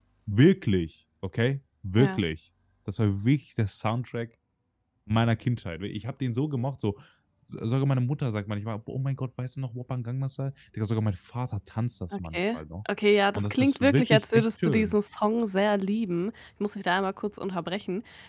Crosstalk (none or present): present